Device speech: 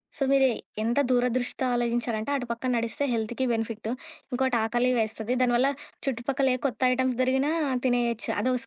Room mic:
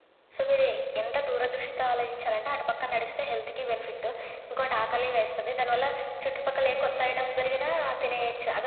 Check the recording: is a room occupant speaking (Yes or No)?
No